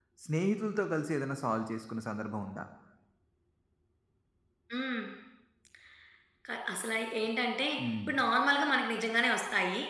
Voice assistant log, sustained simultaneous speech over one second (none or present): none